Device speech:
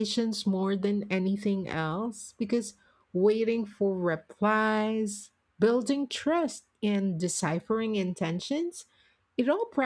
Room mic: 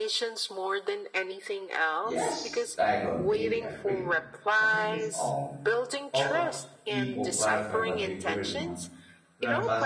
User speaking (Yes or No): Yes